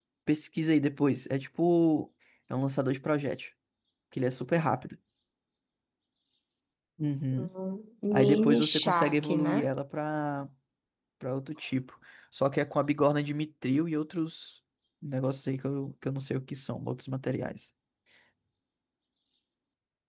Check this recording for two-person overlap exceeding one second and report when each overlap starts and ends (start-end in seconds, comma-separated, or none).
8.1-9.7